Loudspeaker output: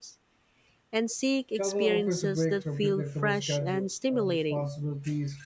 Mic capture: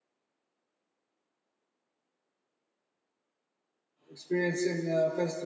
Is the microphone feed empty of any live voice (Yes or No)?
No